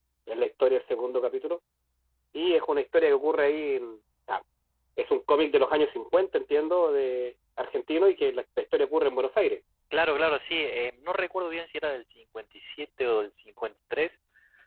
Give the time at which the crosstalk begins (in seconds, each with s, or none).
none